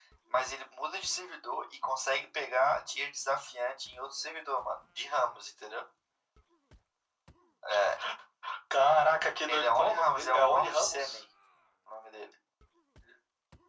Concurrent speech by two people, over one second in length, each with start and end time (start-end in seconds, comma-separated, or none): 9.5-11.2